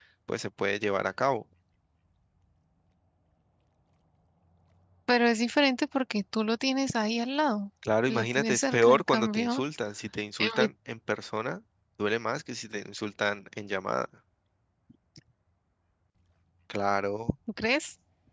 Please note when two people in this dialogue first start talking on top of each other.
8.1 s

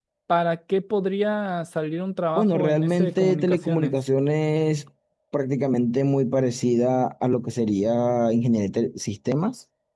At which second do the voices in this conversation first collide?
2.4 s

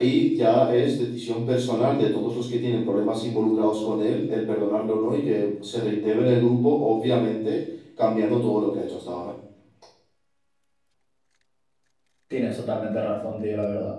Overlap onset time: none

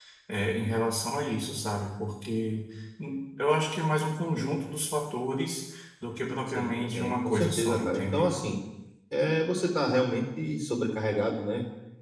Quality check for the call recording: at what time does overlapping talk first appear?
6.5 s

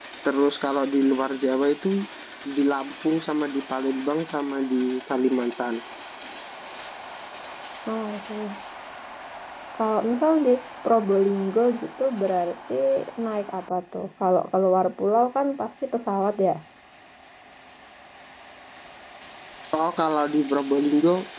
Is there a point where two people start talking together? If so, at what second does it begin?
none

